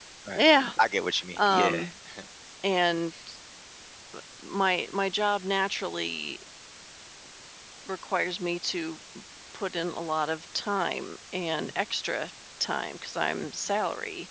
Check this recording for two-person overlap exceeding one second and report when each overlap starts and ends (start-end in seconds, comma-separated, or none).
none